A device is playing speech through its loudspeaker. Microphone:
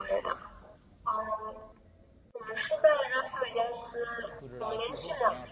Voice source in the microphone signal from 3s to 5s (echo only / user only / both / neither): both